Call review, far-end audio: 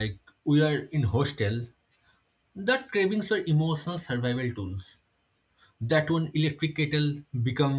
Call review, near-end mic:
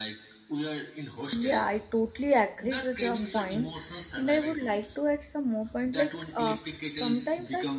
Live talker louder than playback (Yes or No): Yes